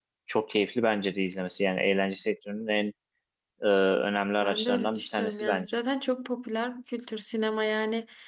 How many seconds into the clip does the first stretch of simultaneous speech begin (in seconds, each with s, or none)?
4.4 s